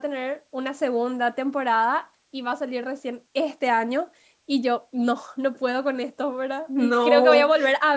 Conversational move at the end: listening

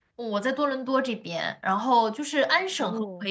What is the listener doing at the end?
listening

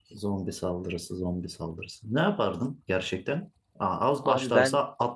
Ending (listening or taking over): listening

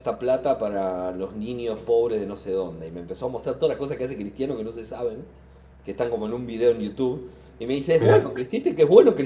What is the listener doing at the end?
listening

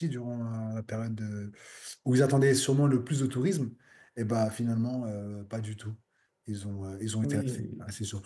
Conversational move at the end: taking over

